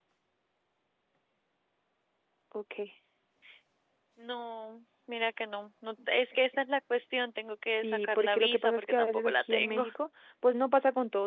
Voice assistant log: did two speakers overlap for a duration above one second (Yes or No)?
Yes